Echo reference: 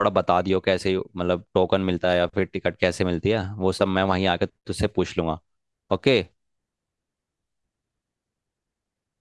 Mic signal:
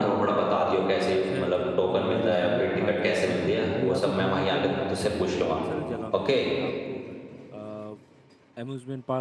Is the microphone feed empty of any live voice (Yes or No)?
No